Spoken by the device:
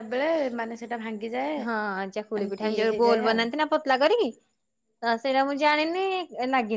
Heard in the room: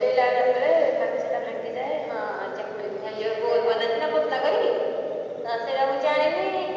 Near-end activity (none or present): none